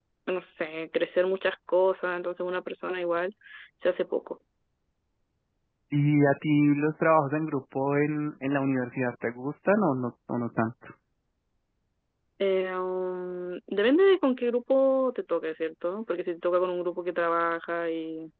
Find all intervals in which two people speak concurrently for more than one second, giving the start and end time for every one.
none

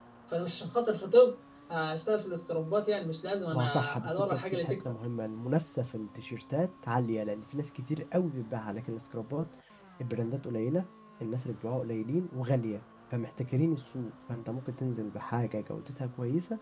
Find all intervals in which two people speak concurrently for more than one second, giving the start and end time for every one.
3.5-4.9

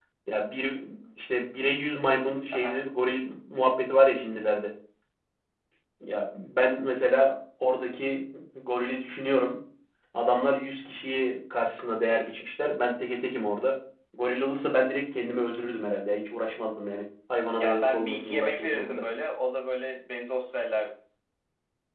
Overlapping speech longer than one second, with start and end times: 17.6-19.0

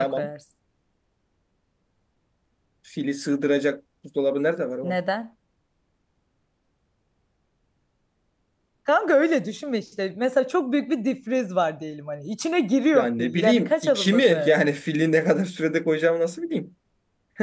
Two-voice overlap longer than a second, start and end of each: 12.9-14.6

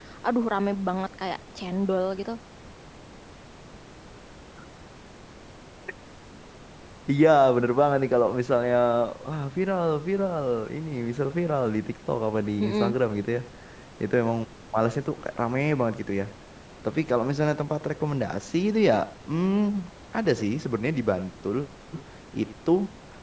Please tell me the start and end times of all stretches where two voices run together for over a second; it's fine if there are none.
none

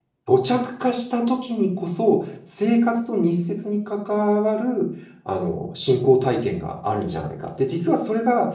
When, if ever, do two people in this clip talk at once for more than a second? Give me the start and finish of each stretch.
none

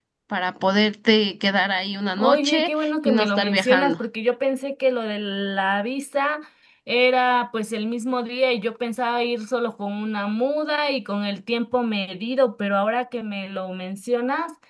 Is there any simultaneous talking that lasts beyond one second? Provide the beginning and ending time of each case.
2.2-4.0

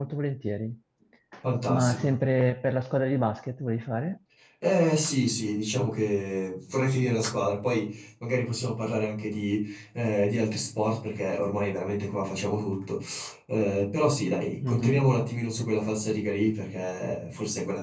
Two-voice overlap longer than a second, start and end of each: none

